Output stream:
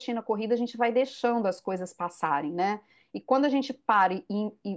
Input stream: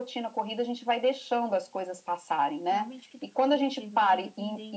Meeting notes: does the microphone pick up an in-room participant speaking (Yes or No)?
Yes